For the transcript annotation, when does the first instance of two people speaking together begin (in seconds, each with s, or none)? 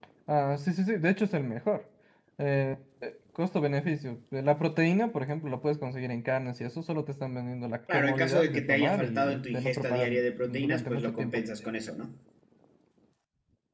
7.9 s